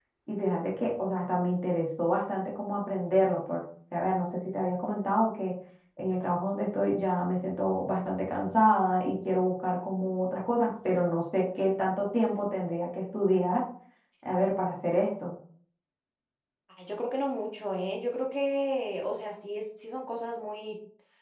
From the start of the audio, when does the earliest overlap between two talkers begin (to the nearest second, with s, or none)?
none